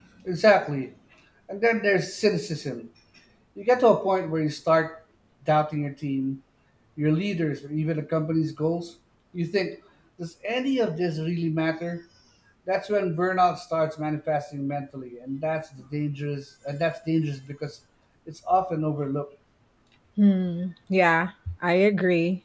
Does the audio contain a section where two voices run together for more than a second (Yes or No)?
No